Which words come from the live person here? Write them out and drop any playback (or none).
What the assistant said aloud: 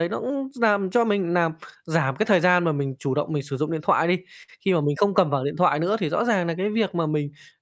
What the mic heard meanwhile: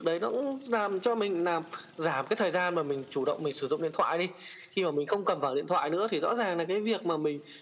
none